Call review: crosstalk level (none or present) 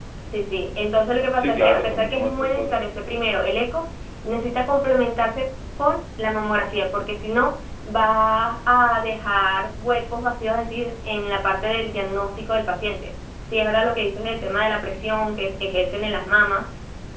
present